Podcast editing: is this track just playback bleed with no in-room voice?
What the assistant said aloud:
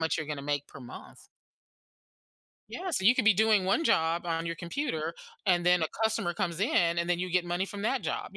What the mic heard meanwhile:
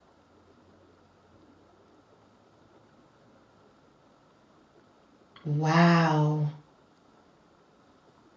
No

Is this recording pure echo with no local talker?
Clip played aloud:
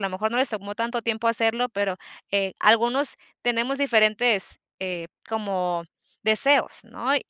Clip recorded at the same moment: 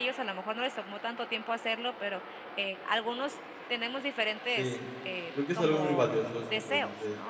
No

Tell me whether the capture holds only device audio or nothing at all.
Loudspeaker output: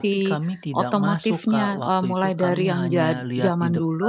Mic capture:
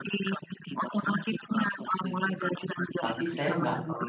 No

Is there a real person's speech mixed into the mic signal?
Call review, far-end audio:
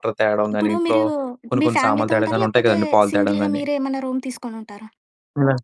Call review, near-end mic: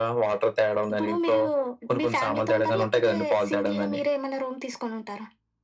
No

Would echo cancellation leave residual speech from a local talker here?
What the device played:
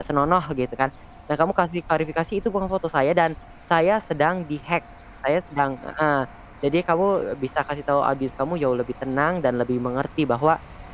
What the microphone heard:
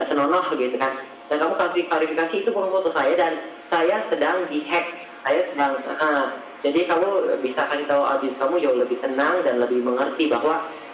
No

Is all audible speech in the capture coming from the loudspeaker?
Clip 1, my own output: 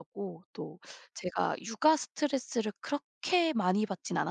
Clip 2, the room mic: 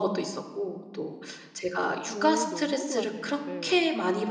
No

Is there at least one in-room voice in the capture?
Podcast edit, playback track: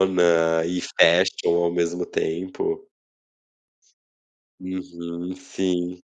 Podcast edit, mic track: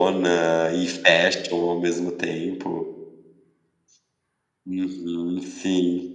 No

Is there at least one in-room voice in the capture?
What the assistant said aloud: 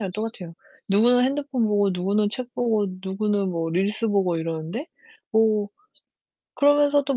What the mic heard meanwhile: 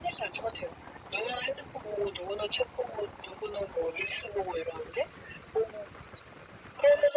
No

